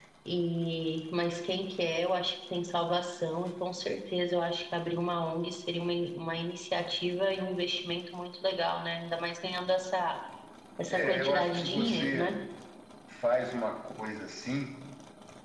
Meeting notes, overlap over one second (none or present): present